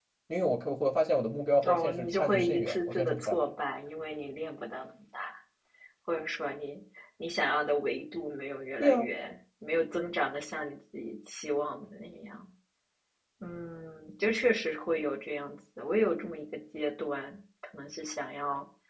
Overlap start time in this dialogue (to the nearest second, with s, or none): 2 s